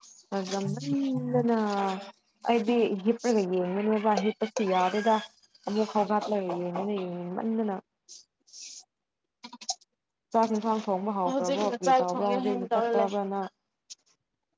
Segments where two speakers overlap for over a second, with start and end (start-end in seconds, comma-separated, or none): 11.3-13.1